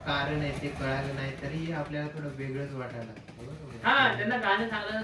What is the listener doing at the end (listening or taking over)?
taking over